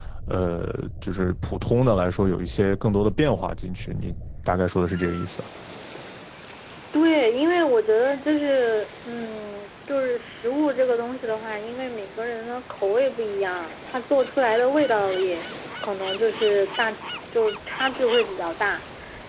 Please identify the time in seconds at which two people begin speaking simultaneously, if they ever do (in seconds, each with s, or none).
none